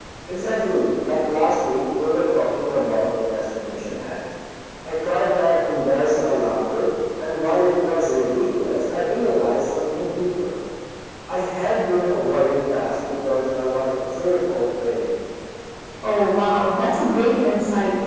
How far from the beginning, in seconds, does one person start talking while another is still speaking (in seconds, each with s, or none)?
none